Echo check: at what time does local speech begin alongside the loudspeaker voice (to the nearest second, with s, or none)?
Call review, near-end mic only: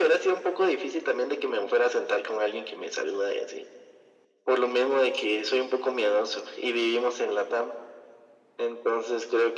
none